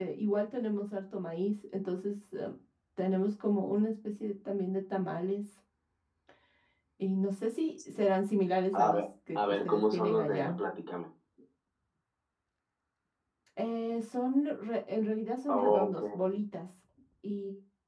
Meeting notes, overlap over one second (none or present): present